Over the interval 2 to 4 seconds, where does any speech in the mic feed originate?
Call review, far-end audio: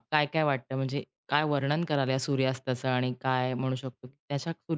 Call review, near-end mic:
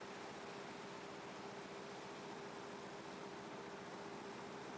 neither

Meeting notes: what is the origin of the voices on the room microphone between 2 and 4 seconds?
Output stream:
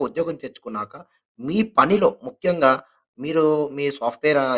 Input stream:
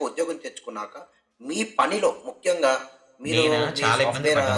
both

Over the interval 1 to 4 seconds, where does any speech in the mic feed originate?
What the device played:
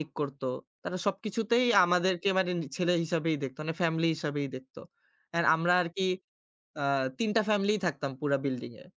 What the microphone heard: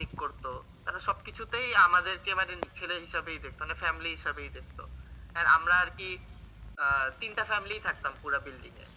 echo only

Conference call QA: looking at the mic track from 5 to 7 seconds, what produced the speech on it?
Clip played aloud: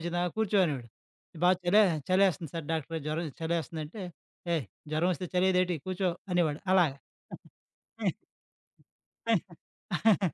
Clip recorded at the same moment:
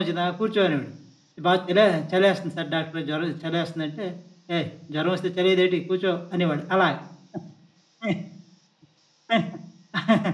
echo only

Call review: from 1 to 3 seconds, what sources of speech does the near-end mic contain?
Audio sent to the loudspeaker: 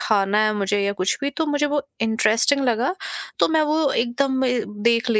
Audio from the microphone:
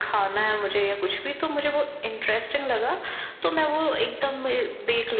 echo only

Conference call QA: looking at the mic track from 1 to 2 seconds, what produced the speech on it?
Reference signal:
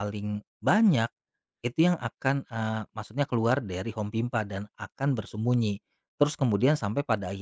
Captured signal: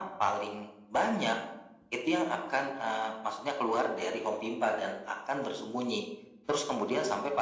echo only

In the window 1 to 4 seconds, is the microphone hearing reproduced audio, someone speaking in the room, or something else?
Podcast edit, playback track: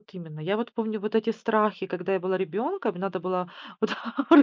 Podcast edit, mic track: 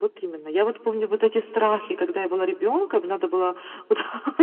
echo only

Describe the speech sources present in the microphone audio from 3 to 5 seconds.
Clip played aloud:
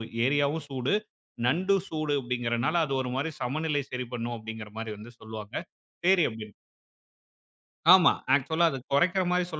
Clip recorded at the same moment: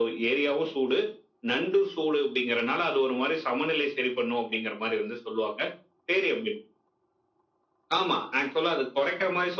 echo only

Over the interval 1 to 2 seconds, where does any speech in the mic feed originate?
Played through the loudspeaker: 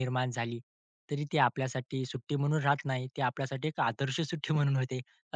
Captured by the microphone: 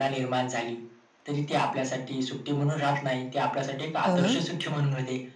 echo only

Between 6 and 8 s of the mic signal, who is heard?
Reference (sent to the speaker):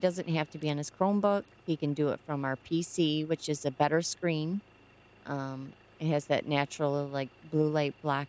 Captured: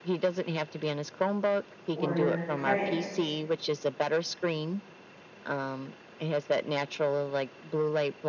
echo only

